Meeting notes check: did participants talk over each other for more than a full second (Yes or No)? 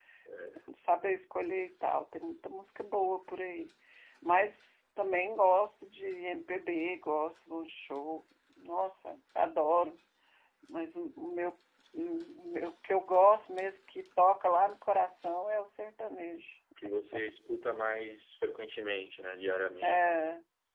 No